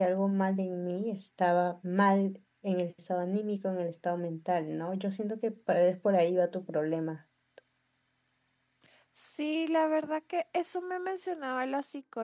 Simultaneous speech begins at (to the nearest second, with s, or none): none